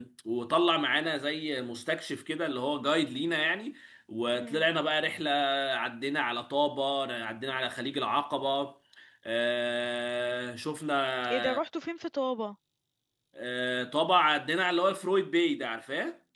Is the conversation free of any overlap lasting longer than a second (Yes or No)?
Yes